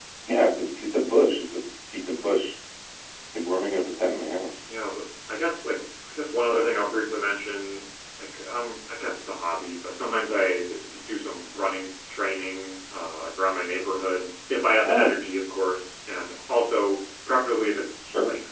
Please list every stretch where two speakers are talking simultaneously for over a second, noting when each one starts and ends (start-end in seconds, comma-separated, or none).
none